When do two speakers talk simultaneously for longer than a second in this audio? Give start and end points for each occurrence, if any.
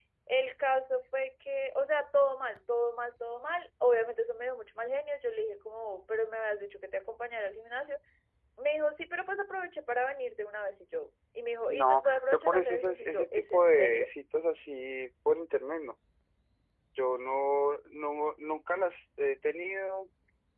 11.7-14.1

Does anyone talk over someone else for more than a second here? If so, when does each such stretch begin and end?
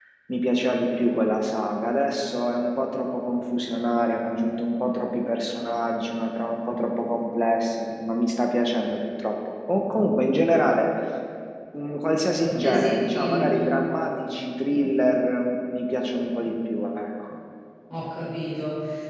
12.4-13.7

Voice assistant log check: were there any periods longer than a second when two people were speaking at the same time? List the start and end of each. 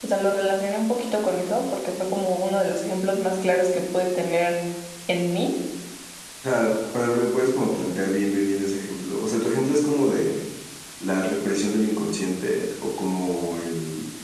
none

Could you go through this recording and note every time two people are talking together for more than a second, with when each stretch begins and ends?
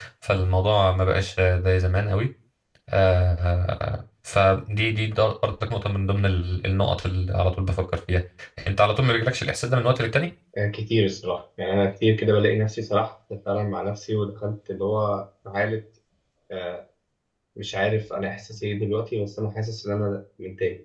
none

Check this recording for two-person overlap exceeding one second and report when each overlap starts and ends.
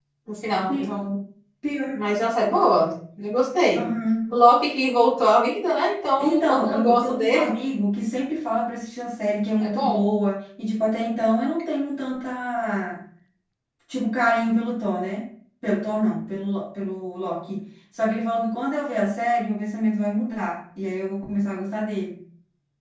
6.2-7.4

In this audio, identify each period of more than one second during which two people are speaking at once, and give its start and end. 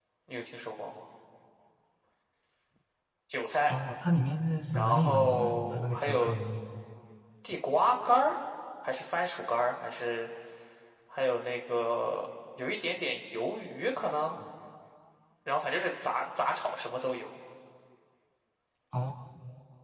4.8-6.3

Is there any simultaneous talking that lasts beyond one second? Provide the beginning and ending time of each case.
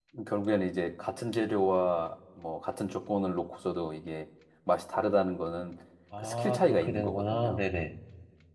6.2-7.6

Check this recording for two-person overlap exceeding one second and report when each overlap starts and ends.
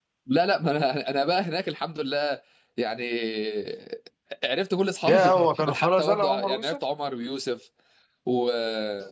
5.1-6.8

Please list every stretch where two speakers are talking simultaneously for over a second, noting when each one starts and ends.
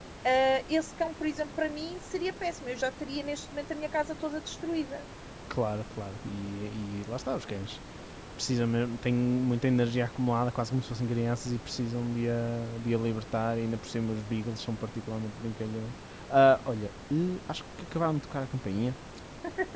none

